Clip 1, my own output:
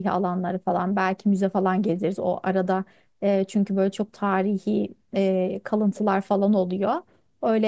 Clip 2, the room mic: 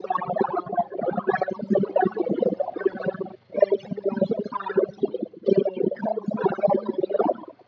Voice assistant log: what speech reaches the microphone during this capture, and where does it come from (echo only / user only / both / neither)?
echo only